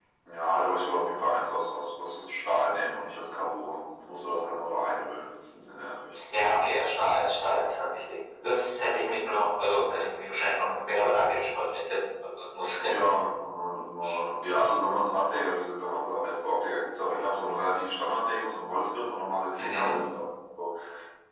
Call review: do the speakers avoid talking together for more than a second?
Yes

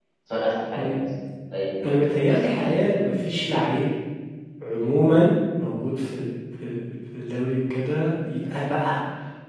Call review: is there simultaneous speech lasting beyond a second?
Yes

